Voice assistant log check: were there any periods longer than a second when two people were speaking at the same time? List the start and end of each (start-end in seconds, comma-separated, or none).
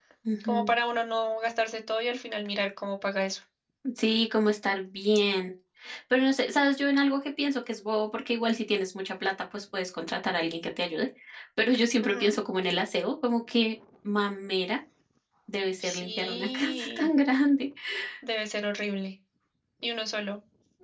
15.9-17.1